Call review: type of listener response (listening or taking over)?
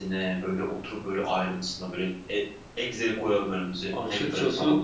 taking over